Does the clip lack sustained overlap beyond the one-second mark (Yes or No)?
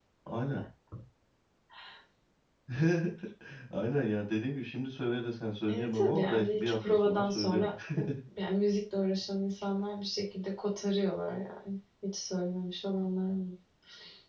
No